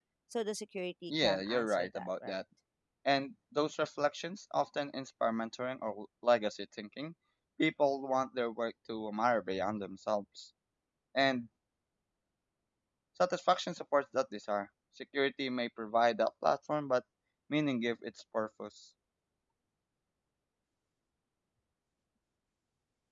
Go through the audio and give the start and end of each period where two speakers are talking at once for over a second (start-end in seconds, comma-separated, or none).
1.1-2.4